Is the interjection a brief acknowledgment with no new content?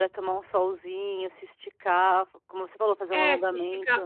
No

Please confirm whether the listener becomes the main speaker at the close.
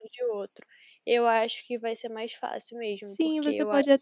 Yes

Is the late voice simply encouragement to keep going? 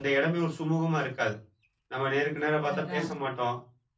Yes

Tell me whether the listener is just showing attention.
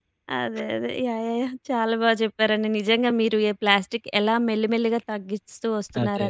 Yes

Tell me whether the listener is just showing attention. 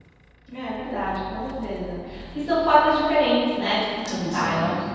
Yes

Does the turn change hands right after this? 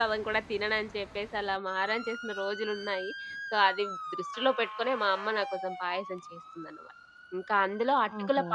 No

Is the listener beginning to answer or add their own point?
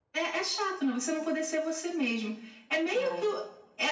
No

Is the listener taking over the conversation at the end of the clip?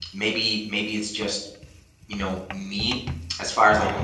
No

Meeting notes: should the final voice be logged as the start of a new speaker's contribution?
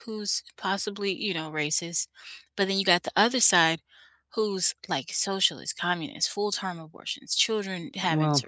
No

